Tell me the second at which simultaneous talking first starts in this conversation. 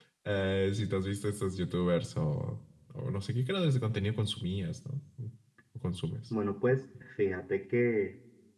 none

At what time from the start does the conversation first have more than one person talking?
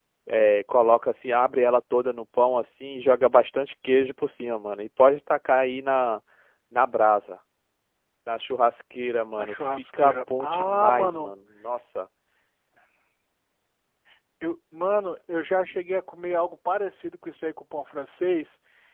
9.4 s

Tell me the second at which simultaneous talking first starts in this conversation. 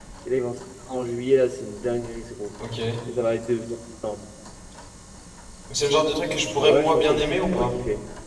6.5 s

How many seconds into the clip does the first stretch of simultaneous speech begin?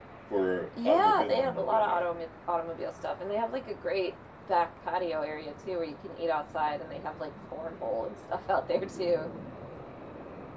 0.8 s

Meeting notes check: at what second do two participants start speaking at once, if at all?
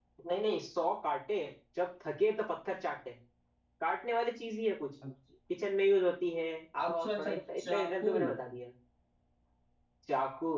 6.8 s

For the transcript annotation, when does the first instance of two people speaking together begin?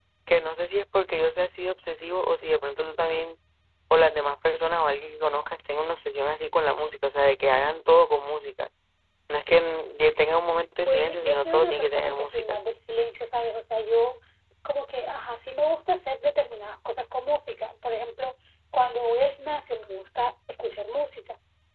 10.8 s

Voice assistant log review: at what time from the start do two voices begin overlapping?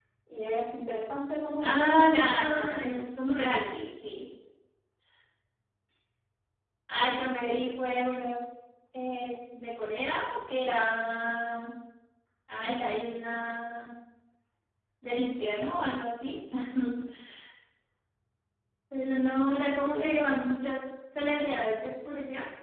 1.6 s

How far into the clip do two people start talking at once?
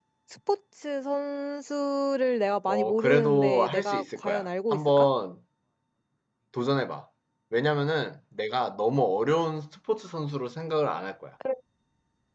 2.7 s

